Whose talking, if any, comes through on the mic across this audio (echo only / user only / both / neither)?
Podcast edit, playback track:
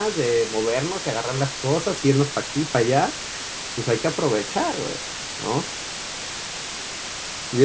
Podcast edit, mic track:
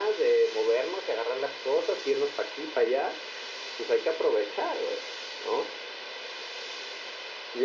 echo only